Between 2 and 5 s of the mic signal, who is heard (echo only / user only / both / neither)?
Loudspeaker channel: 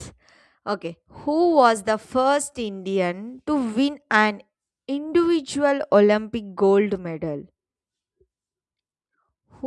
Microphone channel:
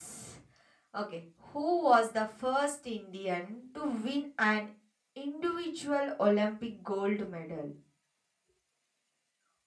echo only